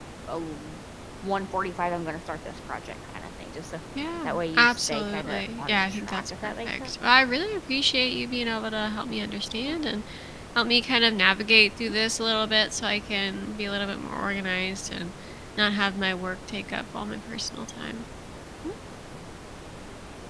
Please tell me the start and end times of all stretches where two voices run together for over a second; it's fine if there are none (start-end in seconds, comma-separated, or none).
4.2-6.9